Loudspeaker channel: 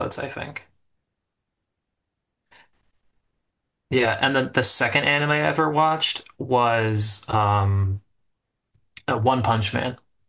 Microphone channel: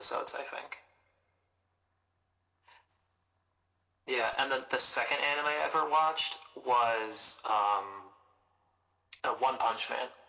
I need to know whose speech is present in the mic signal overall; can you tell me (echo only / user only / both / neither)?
echo only